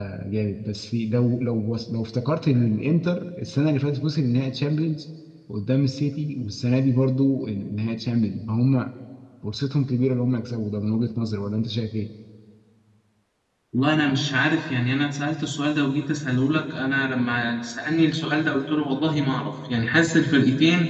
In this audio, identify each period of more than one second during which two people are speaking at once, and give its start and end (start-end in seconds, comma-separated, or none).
none